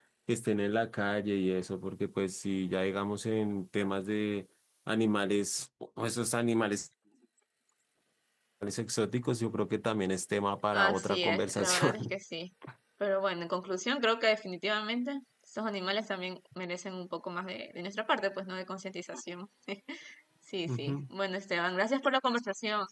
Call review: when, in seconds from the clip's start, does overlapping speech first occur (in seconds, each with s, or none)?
10.7 s